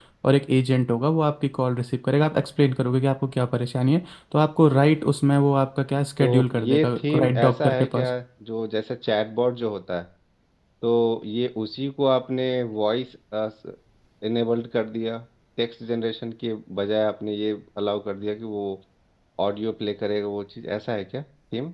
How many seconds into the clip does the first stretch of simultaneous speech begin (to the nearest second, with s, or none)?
6 s